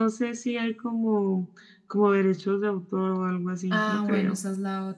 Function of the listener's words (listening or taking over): taking over